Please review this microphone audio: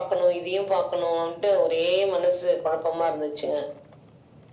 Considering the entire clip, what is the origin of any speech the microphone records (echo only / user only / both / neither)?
echo only